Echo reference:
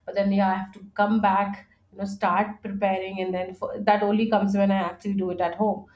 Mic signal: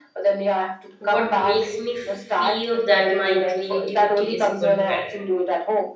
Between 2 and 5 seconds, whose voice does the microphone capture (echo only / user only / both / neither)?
both